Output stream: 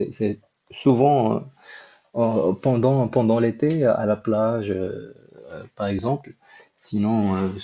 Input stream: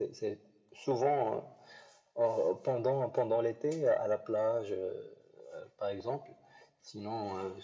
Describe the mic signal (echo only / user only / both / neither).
echo only